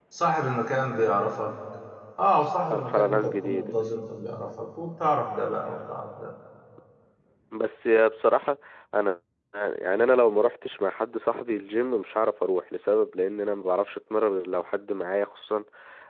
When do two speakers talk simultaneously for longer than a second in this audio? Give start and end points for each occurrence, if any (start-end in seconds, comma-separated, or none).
2.7-4.0